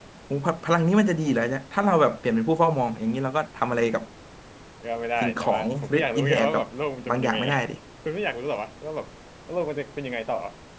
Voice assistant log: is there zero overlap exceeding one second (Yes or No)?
No